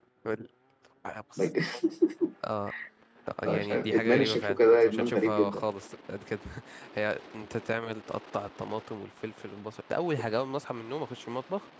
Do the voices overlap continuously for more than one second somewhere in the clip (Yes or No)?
Yes